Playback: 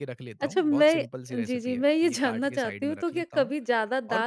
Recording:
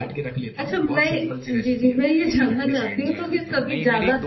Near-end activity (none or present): present